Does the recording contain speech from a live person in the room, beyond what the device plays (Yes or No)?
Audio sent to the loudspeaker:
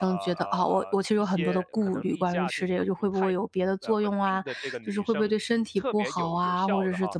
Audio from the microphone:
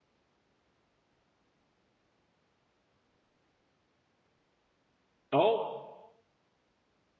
Yes